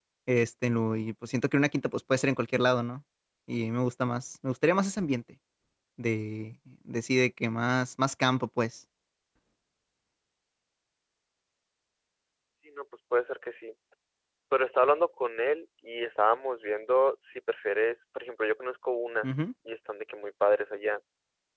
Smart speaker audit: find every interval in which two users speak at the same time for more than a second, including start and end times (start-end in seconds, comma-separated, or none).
none